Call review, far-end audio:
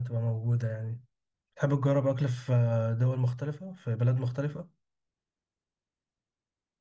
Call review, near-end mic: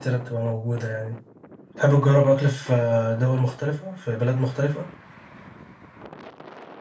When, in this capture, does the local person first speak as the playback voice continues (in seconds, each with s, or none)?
none